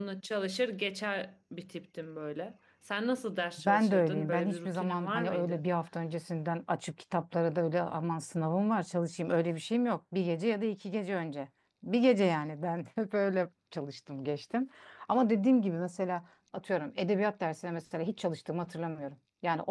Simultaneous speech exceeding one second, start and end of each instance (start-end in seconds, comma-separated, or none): 3.6-5.6